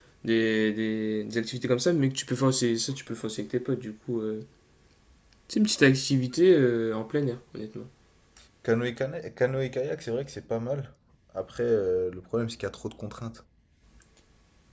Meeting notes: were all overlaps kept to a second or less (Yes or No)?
Yes